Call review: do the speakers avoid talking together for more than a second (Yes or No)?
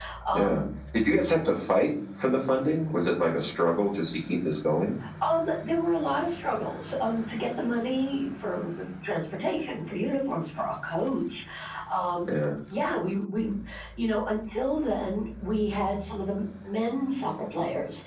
Yes